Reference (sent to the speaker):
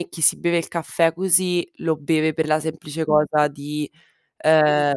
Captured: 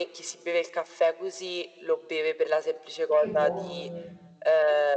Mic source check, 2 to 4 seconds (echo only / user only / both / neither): both